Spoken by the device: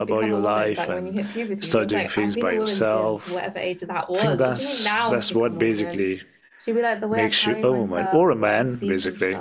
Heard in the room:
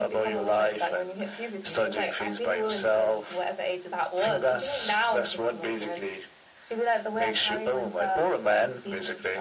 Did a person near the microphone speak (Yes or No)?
No